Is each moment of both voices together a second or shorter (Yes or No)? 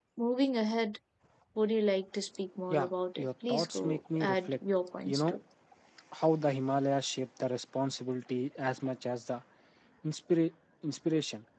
No